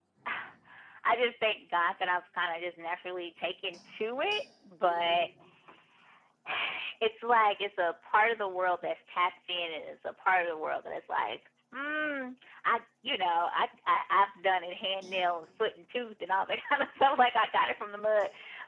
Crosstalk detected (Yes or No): No